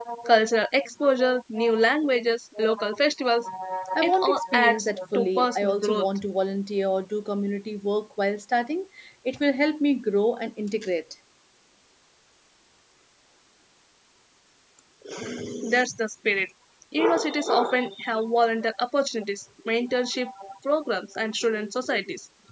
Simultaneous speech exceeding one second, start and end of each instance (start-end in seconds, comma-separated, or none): 4.0-6.1